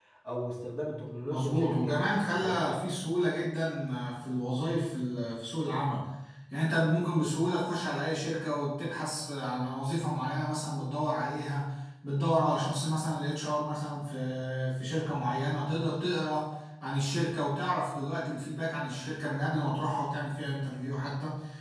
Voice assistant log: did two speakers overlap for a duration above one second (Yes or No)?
Yes